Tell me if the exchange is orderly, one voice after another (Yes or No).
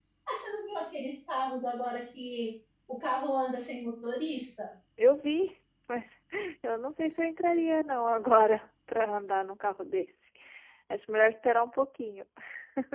Yes